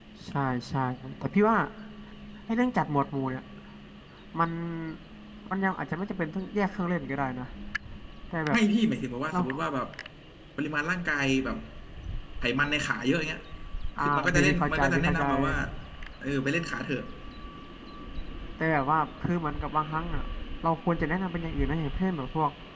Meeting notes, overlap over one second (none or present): present